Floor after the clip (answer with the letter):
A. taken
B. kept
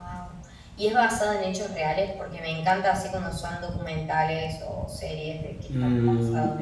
A